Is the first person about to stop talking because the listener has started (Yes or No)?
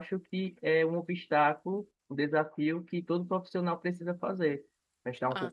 No